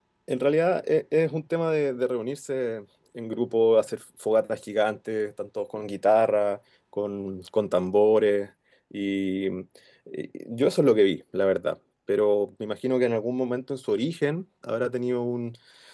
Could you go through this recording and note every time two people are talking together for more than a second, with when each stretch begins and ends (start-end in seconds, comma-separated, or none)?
none